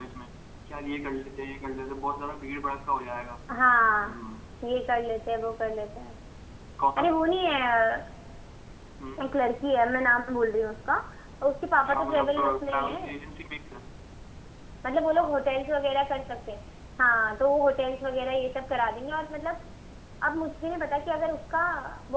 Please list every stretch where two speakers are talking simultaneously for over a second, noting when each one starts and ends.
11.8-13.1

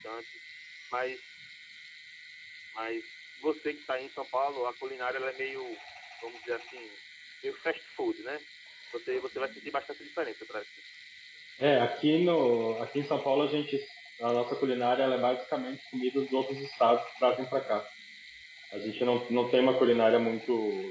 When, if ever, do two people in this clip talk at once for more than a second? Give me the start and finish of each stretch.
none

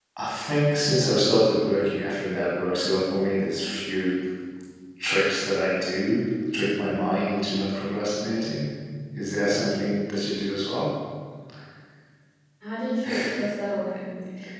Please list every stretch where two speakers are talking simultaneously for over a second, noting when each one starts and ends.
none

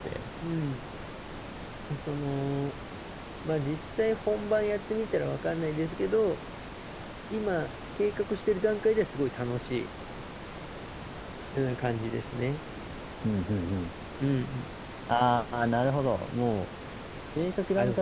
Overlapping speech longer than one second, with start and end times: none

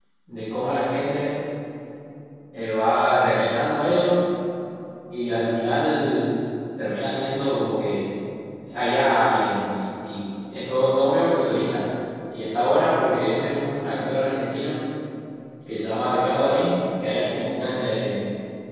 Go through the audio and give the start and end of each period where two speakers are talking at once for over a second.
none

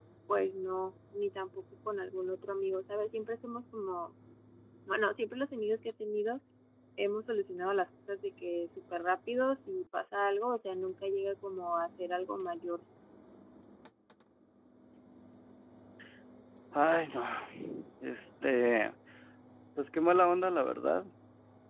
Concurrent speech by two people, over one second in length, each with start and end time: none

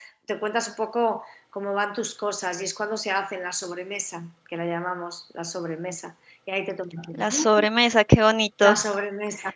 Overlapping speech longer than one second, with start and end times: none

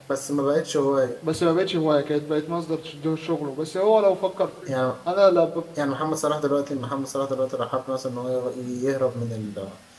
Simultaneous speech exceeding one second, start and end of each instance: none

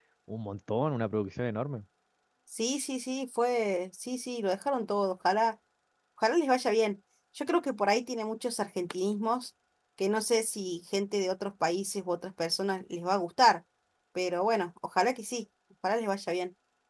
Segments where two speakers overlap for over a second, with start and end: none

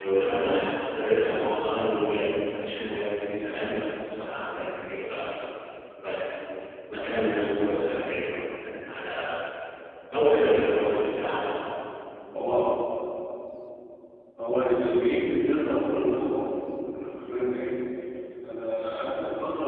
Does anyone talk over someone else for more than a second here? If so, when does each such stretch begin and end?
none

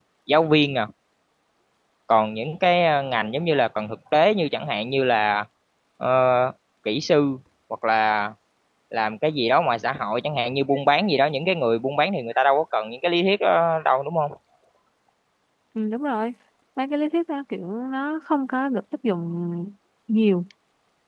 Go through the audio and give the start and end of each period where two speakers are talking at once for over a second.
none

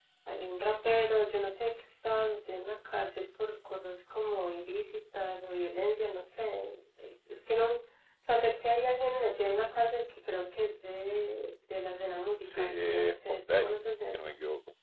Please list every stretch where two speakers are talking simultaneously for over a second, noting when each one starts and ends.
12.4-14.3

